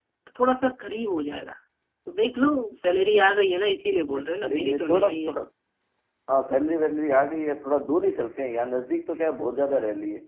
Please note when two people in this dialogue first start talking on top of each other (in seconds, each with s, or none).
4.0 s